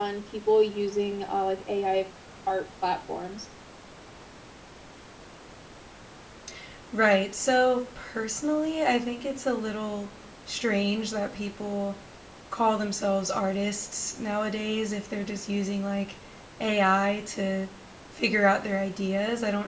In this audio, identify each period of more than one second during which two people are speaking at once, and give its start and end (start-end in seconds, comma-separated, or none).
none